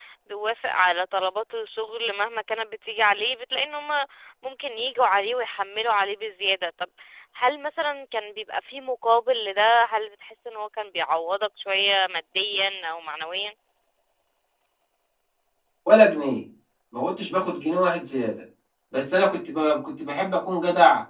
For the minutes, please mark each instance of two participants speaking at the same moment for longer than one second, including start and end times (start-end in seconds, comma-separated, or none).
none